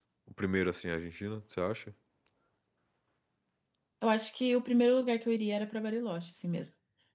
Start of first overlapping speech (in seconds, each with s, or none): none